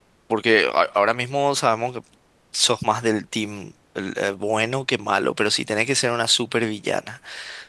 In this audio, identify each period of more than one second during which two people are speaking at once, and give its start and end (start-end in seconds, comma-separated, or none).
none